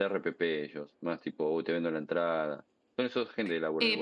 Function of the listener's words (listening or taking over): taking over